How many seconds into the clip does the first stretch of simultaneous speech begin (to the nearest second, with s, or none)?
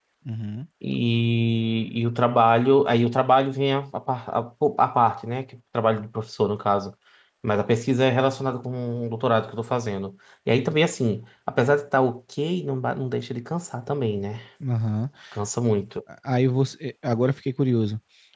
none